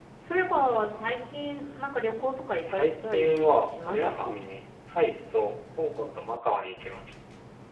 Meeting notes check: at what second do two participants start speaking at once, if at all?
2.7 s

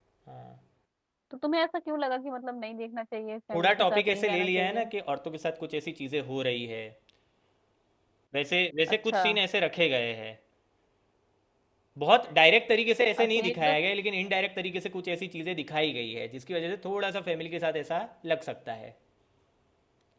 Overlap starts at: 3.5 s

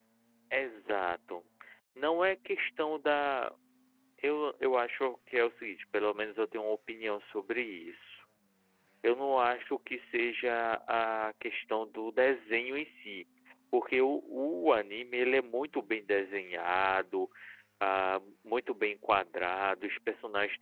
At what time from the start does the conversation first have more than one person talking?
none

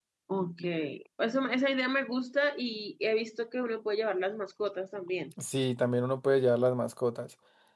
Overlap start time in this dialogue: none

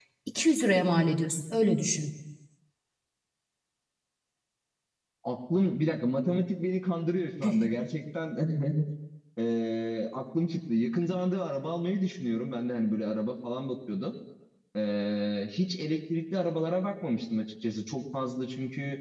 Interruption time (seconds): none

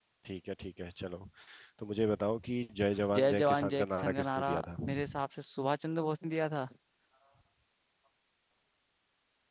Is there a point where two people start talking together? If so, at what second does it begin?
3.2 s

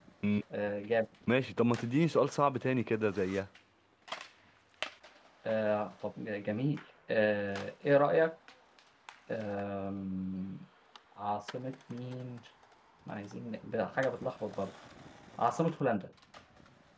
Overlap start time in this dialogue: none

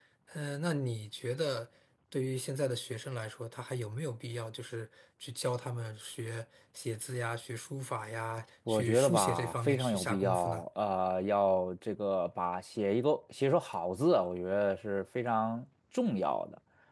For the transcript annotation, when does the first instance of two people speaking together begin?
8.7 s

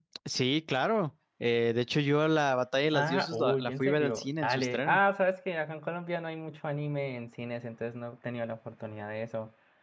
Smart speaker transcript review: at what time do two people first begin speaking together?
2.9 s

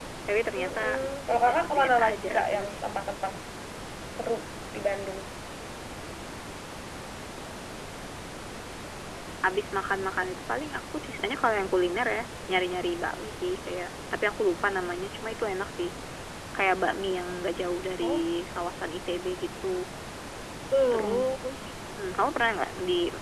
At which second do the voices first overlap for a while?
0.6 s

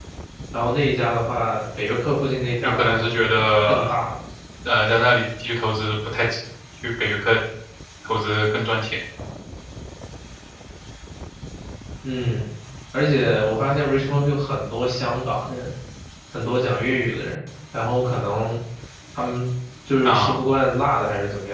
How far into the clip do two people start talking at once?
2.6 s

